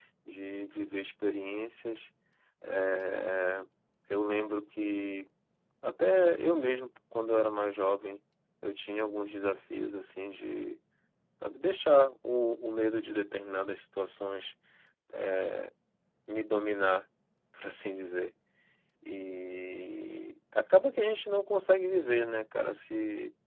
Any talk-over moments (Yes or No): No